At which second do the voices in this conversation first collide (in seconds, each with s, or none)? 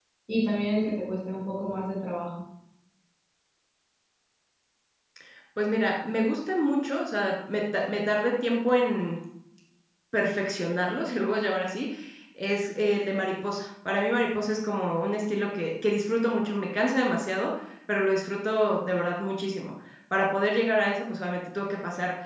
none